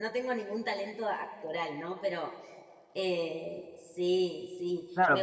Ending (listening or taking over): taking over